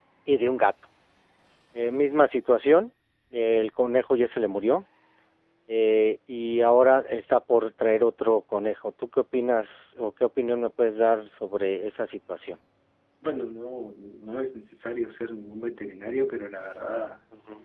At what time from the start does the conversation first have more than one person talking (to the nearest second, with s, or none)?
none